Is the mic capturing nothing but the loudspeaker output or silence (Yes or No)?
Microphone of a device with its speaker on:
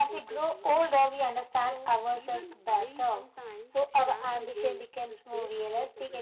No